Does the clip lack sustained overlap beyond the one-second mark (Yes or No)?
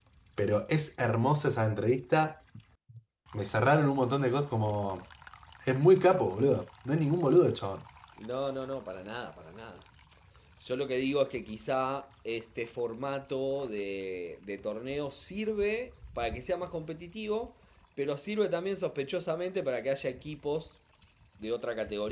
Yes